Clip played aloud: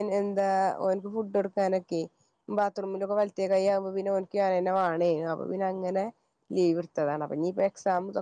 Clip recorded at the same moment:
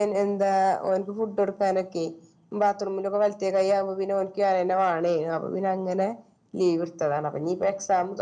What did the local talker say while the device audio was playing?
none

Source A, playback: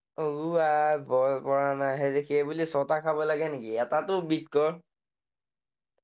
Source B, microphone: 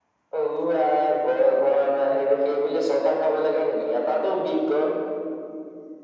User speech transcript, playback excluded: none

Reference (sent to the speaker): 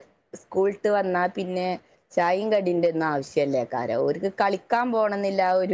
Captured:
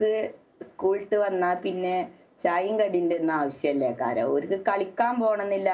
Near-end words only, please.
none

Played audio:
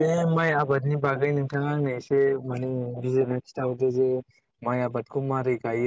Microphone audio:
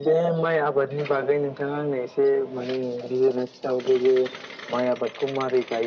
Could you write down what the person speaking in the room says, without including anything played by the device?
none

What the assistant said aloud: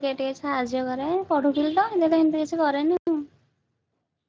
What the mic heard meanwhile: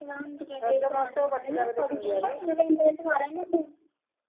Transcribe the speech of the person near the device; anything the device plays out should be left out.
ରଜ ମହଉତ୍ସବ ପଡିଥିଲା ବୋଧେ ପିଙ୍ଗୁଆରେ?

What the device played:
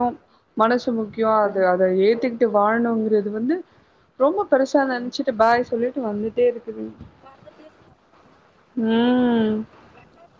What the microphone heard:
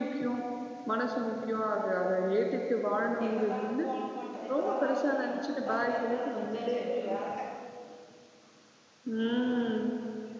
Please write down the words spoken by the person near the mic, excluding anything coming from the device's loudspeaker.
இப்ப தாங்க கோலம் போட்டது இப்பதா வாசல் கழுவுனே இப்பதா பெருக்குன்ன துணி துவச்சு வெறு வேலைக்கா

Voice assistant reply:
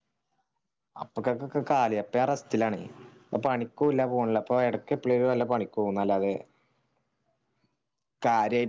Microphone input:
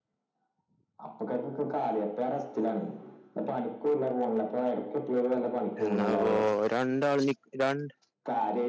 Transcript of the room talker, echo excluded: എന്നാപ്പോ രണ്ടാൾ നി രണ്ട്

